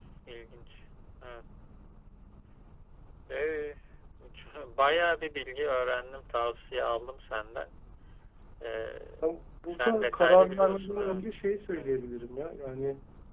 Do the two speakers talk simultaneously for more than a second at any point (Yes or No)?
Yes